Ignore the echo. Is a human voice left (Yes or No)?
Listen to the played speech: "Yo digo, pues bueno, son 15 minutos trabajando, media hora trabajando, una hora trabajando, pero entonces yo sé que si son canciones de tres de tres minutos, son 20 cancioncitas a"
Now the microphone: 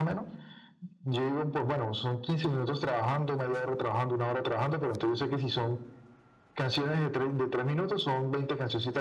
No